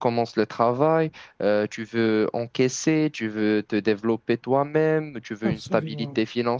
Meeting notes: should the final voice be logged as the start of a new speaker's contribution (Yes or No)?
No